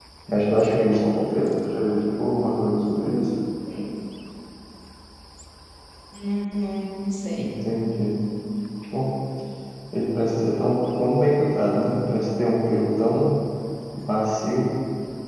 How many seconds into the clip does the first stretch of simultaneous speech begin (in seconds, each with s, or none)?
none